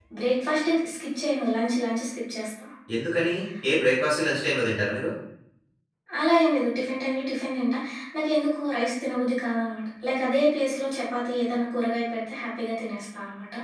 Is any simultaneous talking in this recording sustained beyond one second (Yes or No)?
No